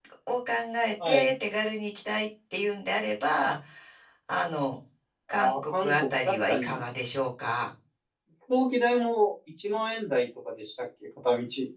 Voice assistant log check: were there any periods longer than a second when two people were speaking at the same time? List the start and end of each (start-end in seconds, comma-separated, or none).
5.3-6.8